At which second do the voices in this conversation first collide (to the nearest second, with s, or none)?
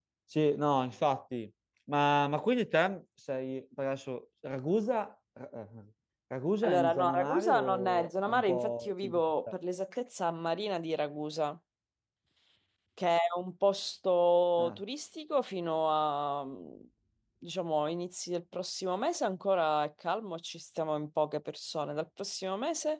7 s